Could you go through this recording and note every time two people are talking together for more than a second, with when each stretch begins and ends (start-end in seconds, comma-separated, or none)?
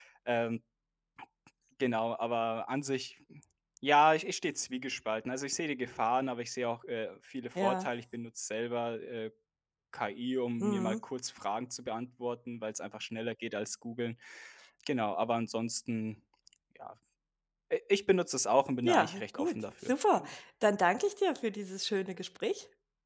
18.8-20.3